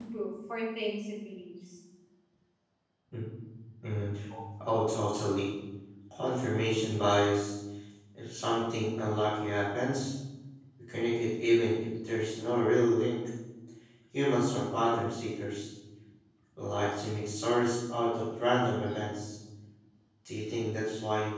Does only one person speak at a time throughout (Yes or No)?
Yes